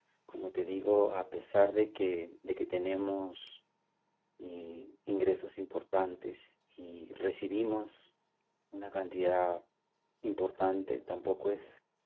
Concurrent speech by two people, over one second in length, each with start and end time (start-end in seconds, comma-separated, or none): none